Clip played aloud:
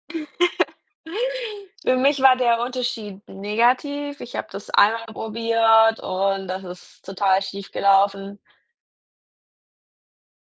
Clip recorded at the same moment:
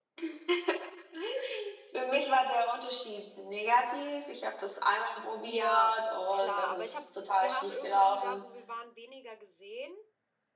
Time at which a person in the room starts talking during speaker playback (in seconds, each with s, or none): 5.4 s